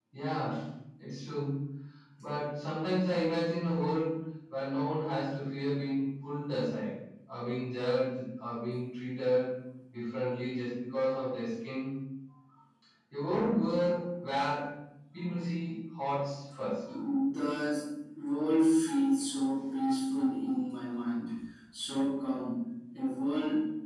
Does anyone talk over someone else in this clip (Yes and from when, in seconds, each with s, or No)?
No